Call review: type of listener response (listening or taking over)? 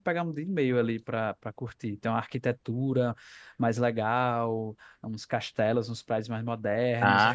listening